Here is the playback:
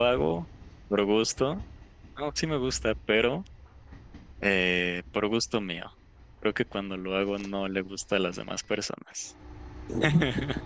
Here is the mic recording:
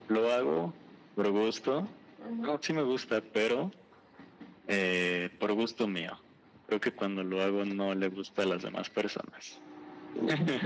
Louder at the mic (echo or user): echo